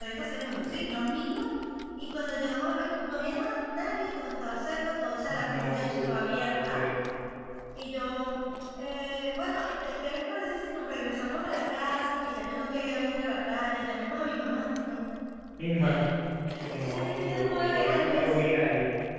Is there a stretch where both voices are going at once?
Yes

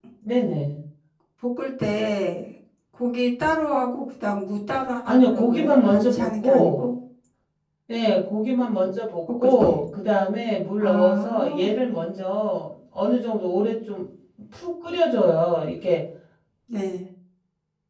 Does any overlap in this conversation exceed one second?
Yes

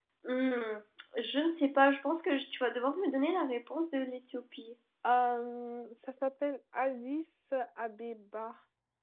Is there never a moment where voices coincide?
Yes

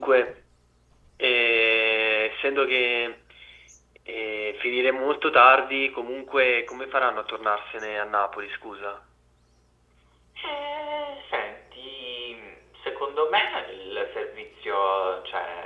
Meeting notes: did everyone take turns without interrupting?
Yes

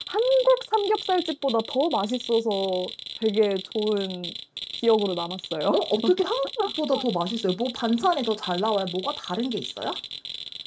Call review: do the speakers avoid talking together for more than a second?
Yes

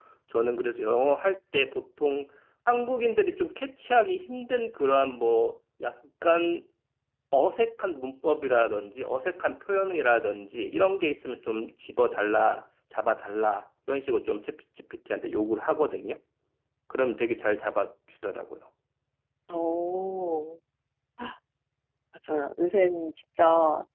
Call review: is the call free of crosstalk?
Yes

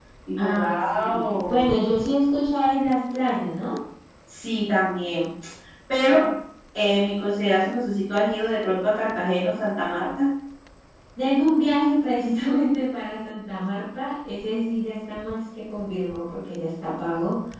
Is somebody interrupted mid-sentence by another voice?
Yes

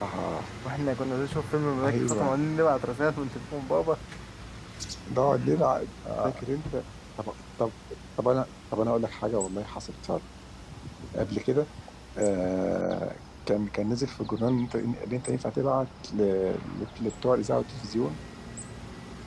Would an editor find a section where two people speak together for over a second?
No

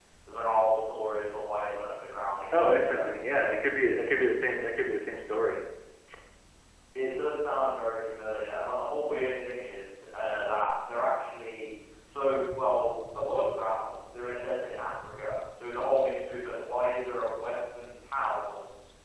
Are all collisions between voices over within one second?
Yes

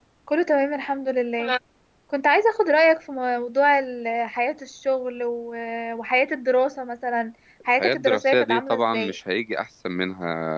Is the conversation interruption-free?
No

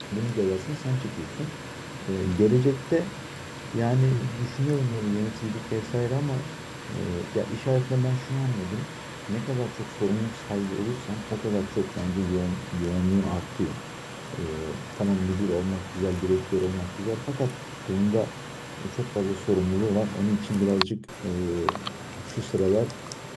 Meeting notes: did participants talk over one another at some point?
No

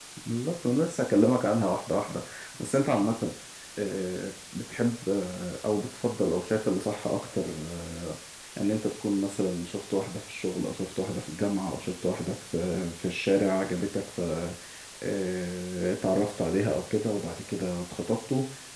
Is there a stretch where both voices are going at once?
No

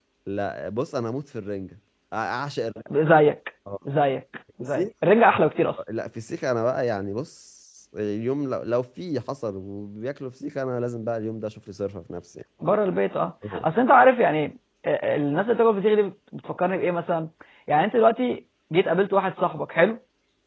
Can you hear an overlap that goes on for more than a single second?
No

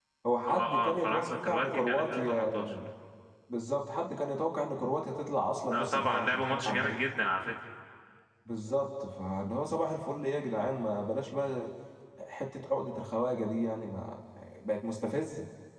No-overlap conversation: No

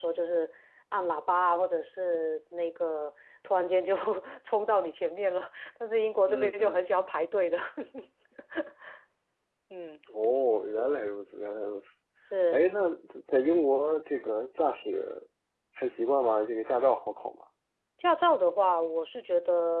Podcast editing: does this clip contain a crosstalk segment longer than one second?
No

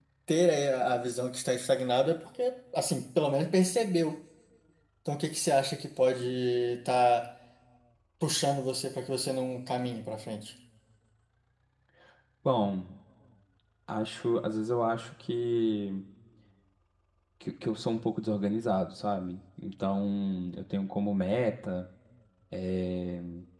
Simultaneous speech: No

